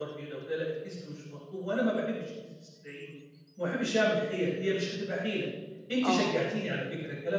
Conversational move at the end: listening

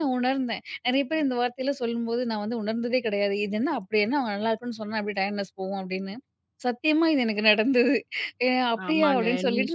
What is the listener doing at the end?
taking over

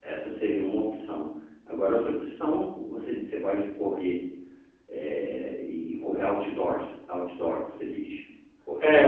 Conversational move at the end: taking over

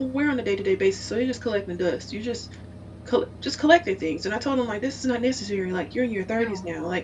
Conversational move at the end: listening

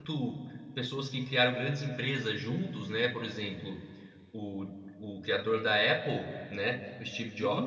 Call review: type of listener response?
listening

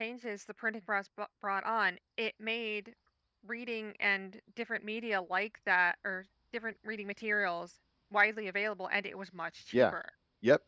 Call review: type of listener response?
taking over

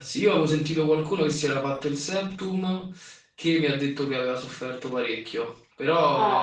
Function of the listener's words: listening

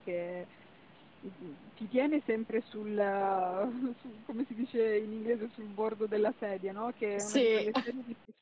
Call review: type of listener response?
listening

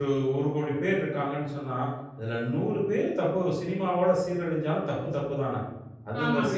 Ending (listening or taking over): taking over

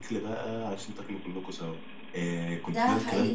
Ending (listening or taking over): listening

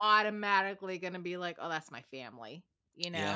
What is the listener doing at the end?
taking over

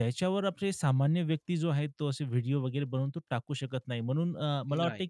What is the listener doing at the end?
listening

